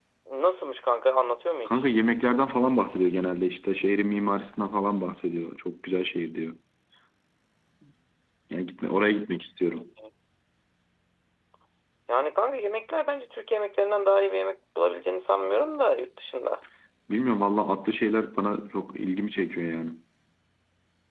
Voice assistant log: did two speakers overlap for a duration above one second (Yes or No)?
No